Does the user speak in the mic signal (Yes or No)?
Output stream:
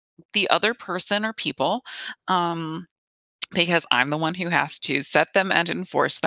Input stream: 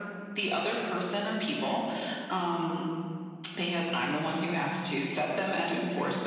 No